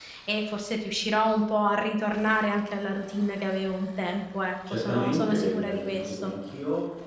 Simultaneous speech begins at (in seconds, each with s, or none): 4.7 s